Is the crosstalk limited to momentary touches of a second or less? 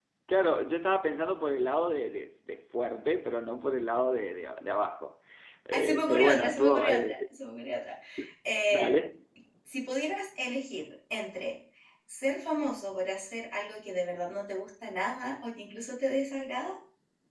No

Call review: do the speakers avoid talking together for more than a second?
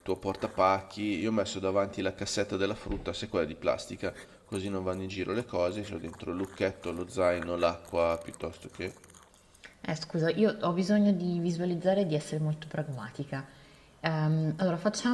Yes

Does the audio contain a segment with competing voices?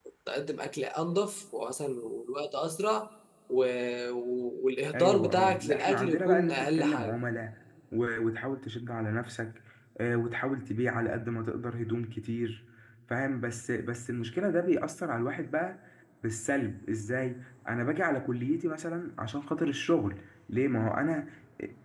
Yes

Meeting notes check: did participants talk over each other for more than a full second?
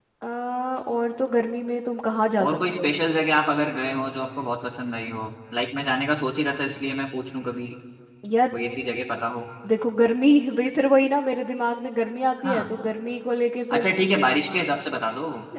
No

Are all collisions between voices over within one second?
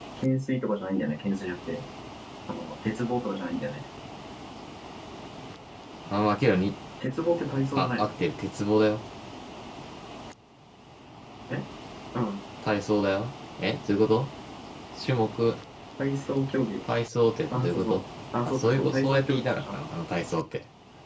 No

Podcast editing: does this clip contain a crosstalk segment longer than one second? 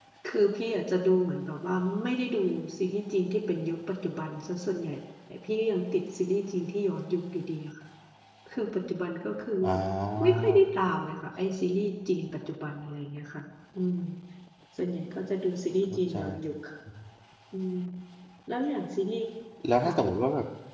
No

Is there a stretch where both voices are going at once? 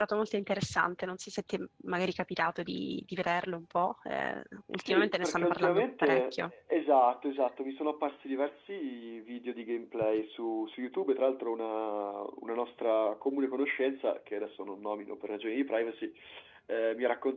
Yes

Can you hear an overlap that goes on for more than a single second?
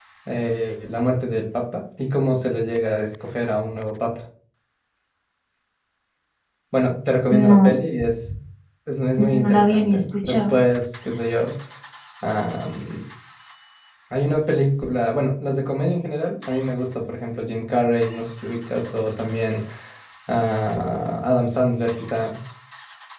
Yes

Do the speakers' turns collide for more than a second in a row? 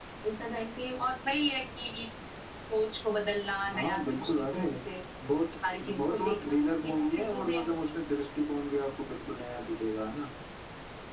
Yes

